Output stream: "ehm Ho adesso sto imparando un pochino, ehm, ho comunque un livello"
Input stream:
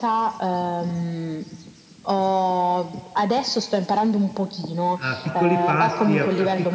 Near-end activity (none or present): present